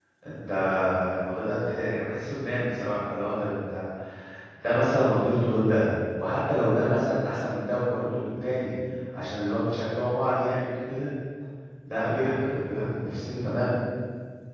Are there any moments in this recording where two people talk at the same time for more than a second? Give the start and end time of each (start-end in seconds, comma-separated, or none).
none